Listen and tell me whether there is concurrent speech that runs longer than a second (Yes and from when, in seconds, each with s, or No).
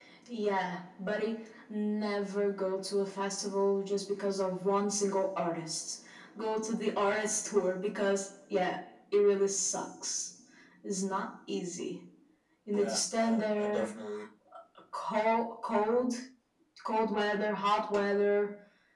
Yes, from 12.7 s